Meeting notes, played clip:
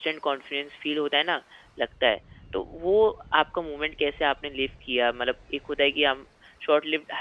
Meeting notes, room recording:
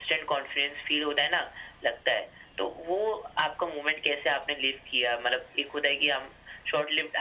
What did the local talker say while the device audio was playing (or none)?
none